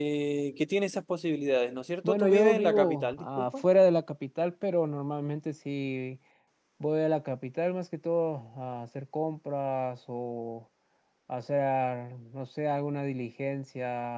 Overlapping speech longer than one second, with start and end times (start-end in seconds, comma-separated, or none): 2.0-3.6